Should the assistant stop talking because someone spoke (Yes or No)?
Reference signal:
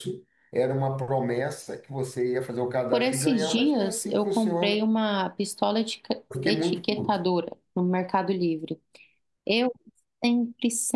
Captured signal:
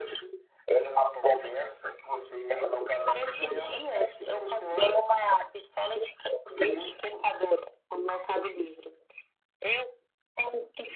No